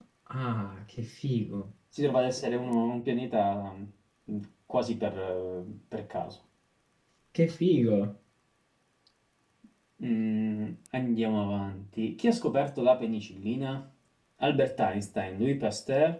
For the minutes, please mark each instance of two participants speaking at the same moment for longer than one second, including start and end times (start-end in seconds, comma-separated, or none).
none